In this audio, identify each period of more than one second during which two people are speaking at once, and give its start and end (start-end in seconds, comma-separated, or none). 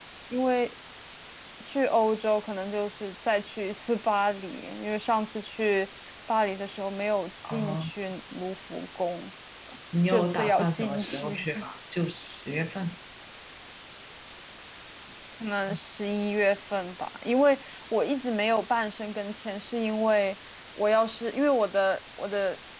10.1-11.4